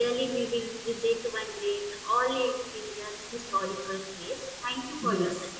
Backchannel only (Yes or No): No